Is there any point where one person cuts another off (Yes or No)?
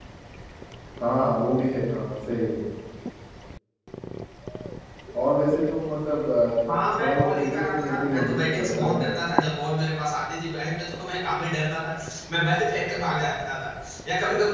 Yes